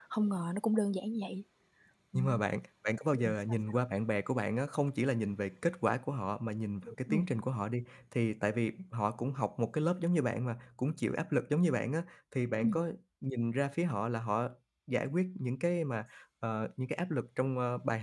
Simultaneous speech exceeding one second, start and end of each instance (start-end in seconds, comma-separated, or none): none